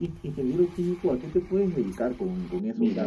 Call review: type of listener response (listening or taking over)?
taking over